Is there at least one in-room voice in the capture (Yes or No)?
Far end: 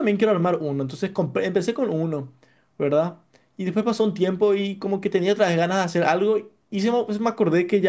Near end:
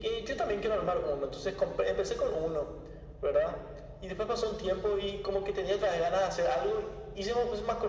No